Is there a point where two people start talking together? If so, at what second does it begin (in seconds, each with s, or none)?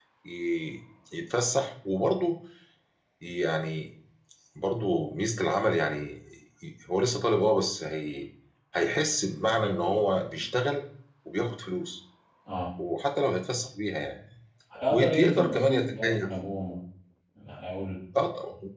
14.9 s